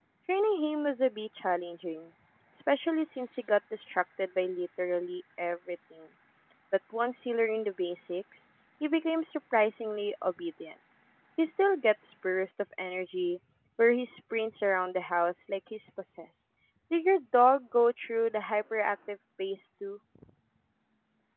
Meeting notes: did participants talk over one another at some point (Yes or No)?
No